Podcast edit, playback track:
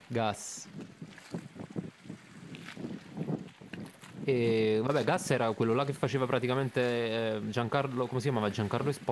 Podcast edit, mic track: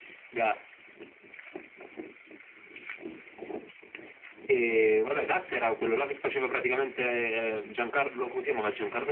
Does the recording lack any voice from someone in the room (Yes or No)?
Yes